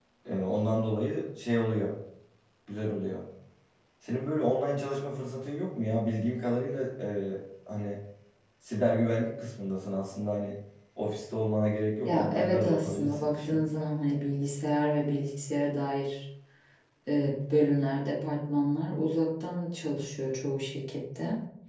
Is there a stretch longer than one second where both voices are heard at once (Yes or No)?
Yes